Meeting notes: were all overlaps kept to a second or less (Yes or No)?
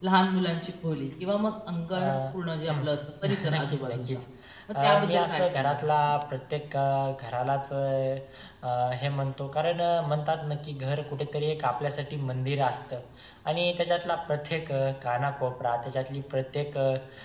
No